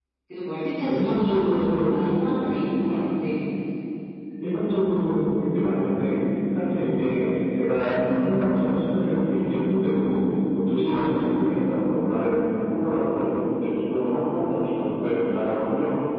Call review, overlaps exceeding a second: present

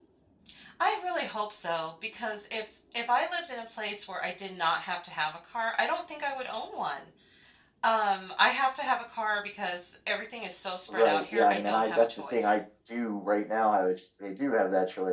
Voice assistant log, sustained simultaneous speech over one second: present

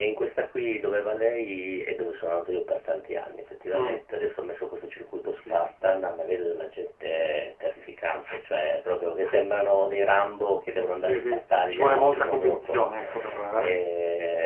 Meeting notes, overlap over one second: present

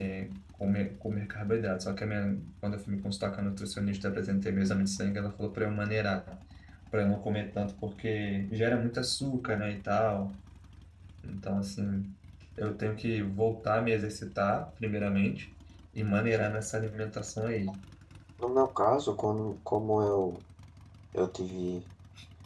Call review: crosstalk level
none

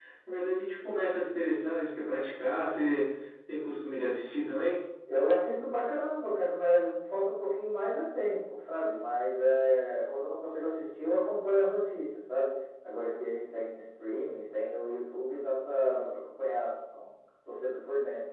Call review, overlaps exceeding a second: none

